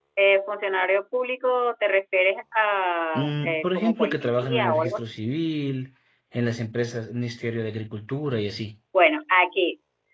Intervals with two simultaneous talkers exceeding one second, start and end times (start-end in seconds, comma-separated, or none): 3.1-5.1